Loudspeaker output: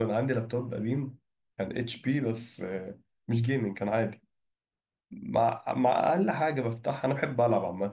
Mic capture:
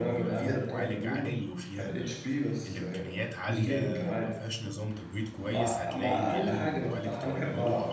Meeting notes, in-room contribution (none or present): present